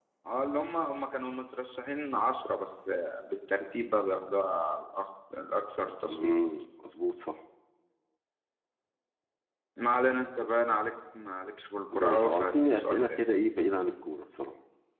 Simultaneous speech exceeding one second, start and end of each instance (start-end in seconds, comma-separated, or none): 11.9-13.2